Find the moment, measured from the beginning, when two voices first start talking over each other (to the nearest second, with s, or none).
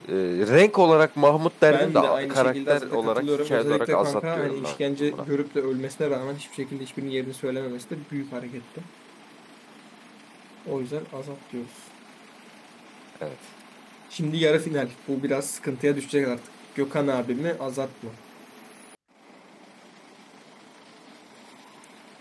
2 s